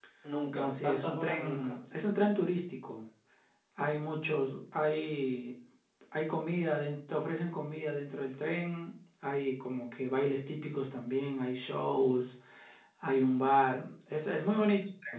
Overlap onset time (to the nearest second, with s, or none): 1 s